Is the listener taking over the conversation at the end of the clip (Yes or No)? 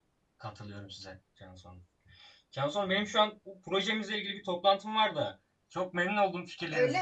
Yes